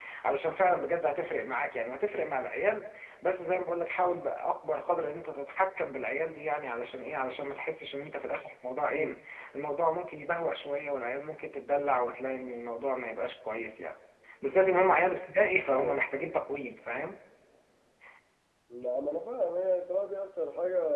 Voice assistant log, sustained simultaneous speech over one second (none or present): none